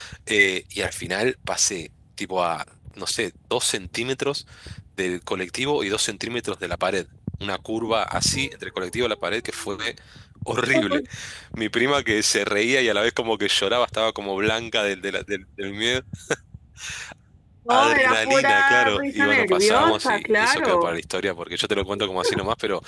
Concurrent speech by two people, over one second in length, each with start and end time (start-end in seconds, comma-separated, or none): 17.7-20.9